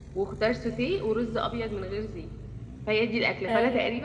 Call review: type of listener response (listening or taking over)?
taking over